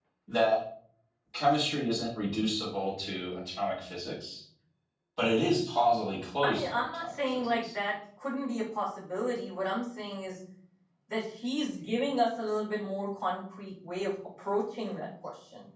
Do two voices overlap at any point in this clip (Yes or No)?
Yes